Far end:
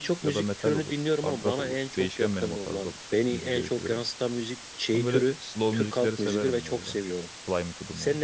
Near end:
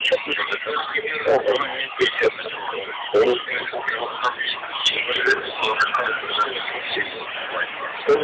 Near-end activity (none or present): none